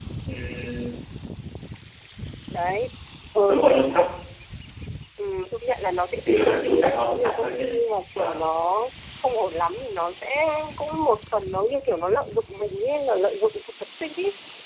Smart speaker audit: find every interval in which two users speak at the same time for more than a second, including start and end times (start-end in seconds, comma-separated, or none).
6.2-7.7